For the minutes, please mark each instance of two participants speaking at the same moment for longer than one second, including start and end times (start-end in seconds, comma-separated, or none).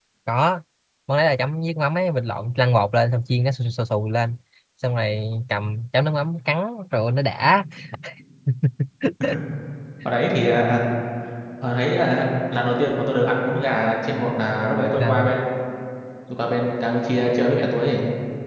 none